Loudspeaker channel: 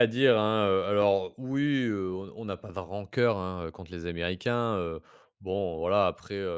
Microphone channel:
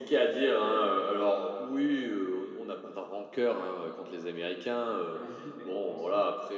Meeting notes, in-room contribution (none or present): present